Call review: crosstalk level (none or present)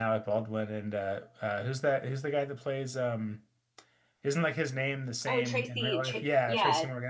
present